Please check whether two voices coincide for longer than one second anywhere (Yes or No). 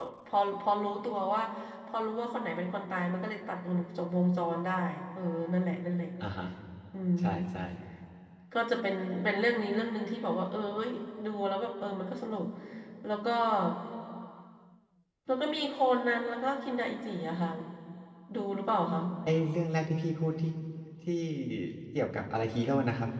No